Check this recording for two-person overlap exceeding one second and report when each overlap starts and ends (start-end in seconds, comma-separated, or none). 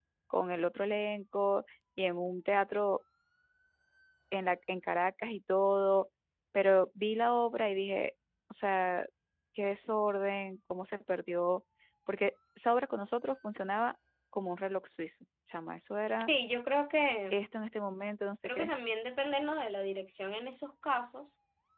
none